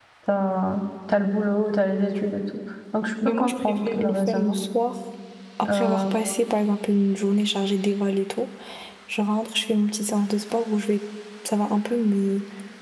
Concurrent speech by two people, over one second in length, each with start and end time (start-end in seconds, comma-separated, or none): 3.2-4.6